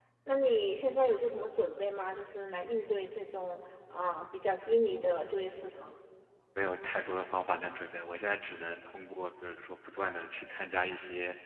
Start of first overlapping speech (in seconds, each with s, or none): none